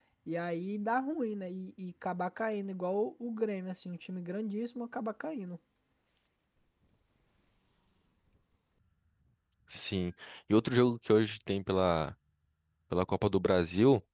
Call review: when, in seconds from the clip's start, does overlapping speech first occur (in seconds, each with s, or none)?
none